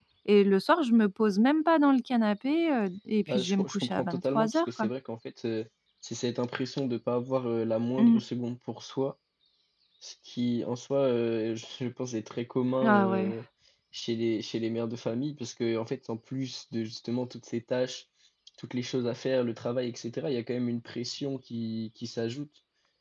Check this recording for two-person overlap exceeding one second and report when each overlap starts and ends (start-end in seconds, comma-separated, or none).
3.3-4.9